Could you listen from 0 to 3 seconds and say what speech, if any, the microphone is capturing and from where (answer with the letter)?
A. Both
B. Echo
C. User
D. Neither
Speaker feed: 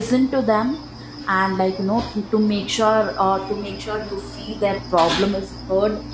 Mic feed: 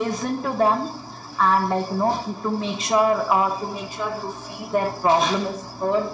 B